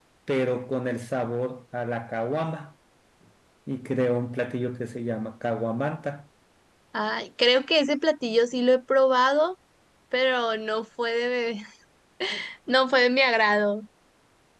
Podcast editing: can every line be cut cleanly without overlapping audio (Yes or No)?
Yes